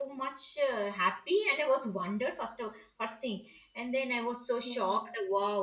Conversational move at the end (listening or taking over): listening